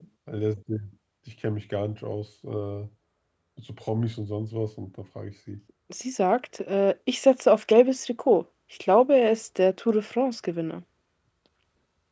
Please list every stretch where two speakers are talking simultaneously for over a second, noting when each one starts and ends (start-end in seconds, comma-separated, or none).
none